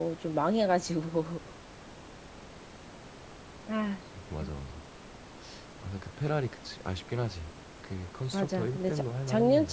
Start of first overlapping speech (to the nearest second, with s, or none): 8 s